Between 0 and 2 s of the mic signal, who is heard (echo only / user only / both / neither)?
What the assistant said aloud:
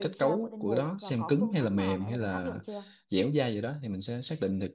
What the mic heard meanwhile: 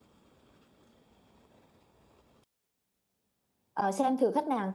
neither